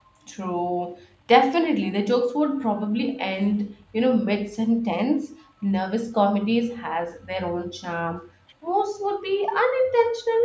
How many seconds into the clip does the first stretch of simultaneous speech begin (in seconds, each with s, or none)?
none